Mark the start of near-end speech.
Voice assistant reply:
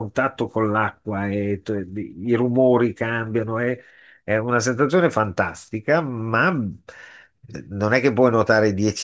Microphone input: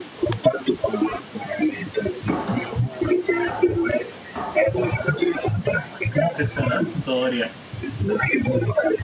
6 s

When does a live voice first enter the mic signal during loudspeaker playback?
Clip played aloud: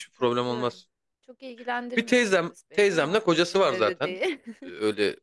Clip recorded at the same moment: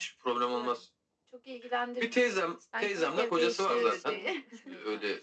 3 s

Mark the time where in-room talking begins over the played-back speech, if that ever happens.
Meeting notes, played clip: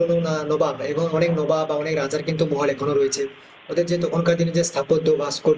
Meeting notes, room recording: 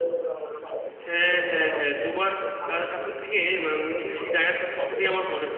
1 s

